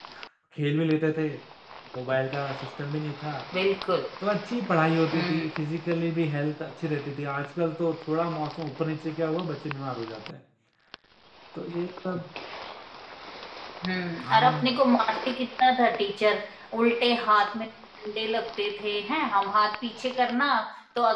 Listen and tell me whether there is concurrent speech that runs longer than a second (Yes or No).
No